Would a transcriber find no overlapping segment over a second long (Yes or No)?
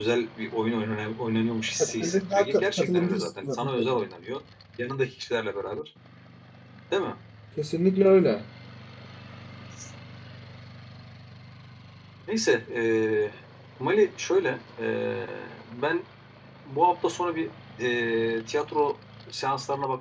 No